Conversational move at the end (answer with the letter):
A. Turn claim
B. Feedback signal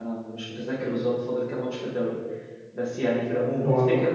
B